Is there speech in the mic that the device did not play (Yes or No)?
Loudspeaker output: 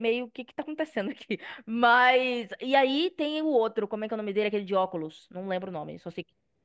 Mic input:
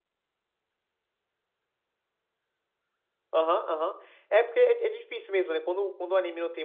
Yes